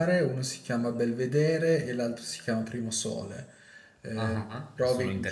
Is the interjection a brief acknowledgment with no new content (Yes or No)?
No